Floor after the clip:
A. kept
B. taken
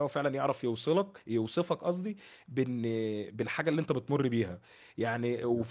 A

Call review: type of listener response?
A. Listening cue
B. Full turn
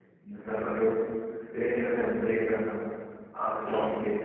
A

